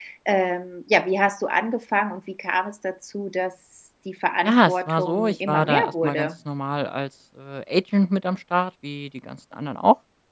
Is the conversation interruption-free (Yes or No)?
No